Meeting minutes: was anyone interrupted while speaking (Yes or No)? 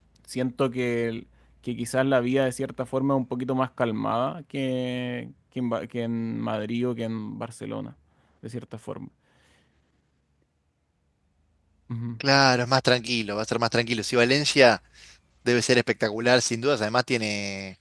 No